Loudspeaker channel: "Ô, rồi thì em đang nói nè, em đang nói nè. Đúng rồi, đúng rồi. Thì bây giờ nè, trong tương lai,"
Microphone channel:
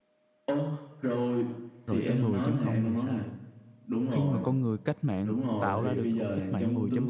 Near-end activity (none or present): present